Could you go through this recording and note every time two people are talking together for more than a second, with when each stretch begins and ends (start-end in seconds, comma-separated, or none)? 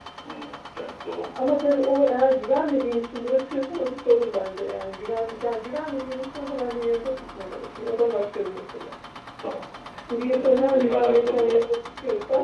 10.3-11.6